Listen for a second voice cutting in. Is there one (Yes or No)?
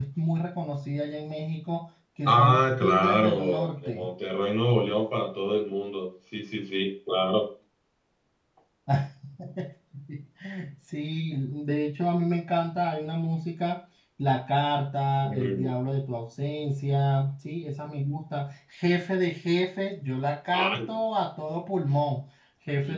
Yes